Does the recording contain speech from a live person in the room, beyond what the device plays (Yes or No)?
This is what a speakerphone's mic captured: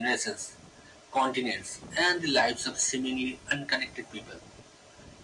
No